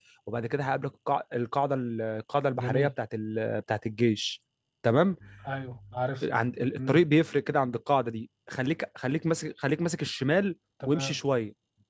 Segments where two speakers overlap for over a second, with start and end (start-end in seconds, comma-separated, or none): none